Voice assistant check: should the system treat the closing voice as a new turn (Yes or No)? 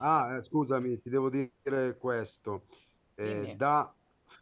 No